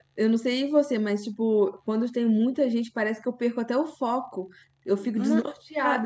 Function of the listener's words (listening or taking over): taking over